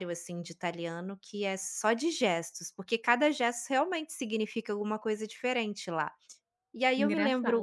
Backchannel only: Yes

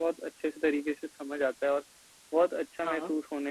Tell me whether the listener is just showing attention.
Yes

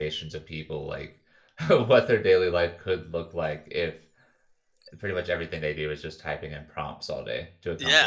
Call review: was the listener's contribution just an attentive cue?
No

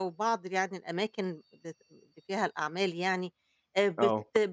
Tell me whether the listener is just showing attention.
Yes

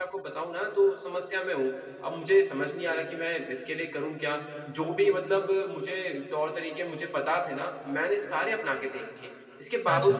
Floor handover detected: No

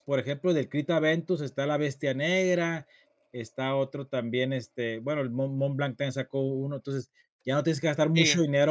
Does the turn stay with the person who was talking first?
Yes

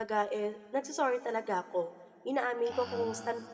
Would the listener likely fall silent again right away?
Yes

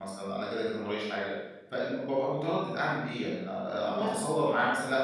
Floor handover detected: No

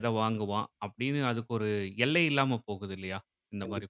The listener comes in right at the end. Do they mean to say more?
Yes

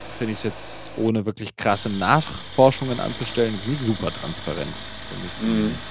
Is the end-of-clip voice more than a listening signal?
Yes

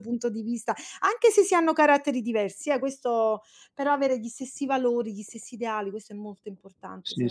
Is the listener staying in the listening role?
No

